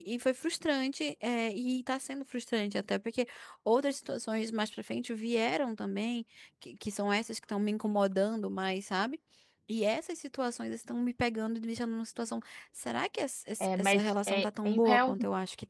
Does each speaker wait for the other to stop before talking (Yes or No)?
No